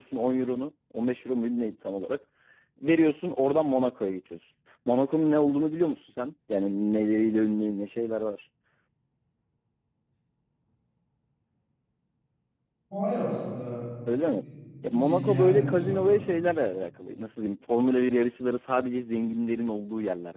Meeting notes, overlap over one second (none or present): present